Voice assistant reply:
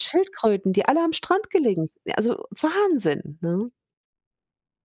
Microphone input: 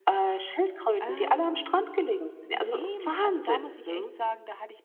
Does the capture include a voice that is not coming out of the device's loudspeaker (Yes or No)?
Yes